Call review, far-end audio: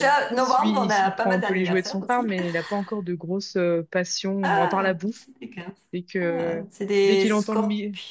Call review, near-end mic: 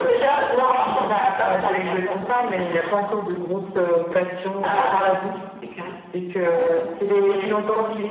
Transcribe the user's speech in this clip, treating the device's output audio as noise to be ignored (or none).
none